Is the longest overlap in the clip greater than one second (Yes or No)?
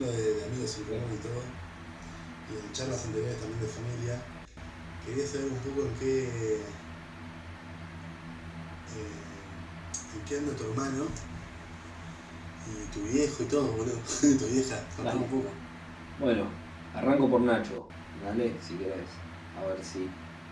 No